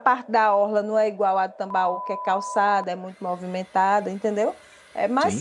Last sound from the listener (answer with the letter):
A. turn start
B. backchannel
B